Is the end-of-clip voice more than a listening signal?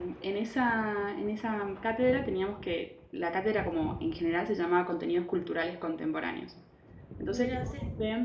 No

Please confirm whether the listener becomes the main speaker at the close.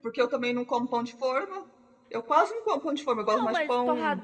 Yes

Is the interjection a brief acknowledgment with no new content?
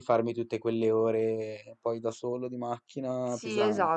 No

